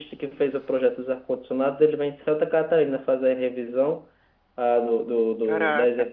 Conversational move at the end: listening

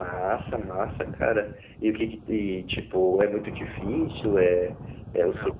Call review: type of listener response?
taking over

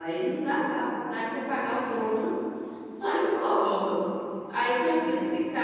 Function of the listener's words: listening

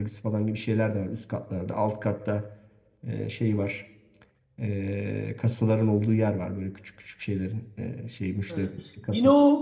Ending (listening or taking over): taking over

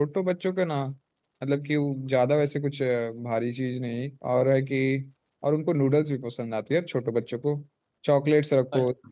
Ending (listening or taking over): listening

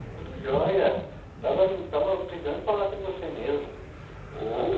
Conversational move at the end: listening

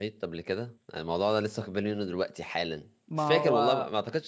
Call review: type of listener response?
listening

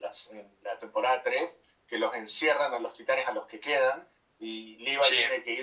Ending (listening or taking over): listening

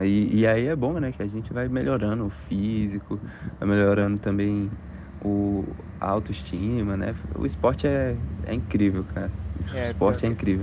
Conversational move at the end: taking over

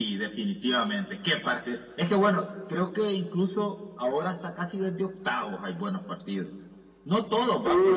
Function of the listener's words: listening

